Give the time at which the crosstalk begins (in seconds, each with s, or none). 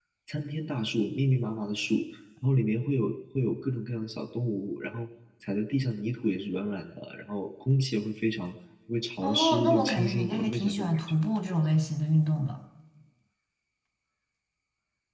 9.2 s